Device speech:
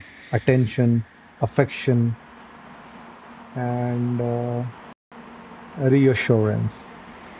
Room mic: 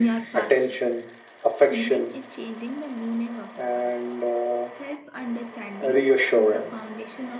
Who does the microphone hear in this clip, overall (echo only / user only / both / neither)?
both